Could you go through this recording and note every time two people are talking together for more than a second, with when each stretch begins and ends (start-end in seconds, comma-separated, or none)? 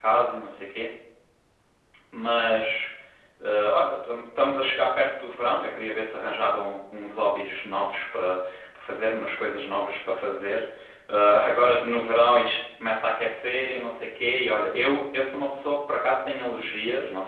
none